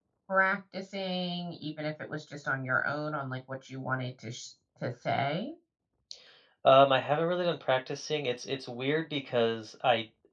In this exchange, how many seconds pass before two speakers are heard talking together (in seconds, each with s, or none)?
none